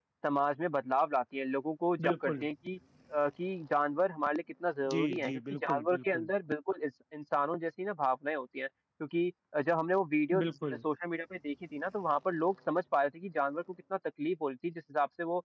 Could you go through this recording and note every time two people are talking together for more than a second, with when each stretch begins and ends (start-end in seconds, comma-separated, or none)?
4.9-6.3